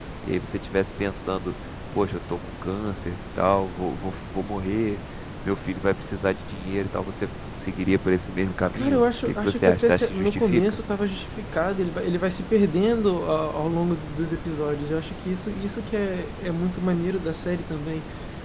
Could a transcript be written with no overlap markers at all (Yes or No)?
No